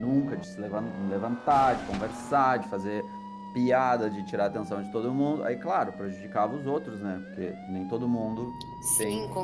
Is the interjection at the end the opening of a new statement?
Yes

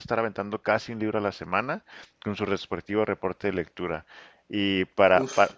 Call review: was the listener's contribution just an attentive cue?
Yes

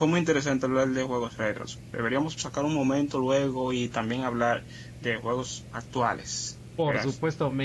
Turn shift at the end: Yes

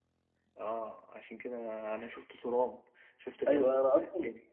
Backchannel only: No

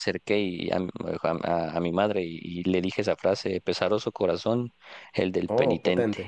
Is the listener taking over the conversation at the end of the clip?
No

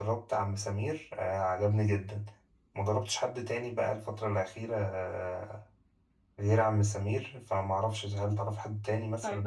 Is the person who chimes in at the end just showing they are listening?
No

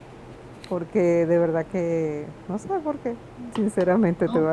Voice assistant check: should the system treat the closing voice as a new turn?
No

